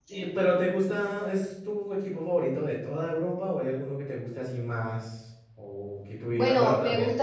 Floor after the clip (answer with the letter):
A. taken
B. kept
A